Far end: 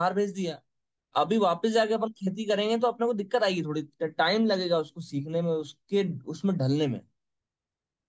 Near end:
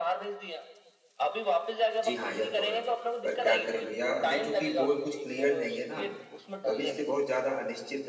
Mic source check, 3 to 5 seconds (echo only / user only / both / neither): both